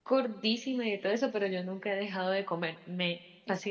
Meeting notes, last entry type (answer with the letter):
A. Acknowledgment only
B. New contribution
B